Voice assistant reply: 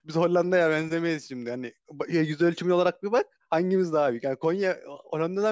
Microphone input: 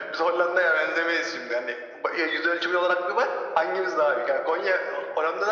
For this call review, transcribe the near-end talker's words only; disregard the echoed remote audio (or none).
none